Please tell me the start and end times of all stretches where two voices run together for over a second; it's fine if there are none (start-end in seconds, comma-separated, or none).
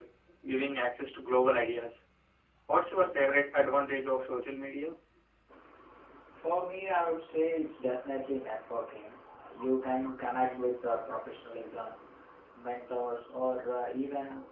none